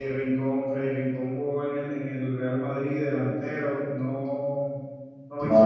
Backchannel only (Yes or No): Yes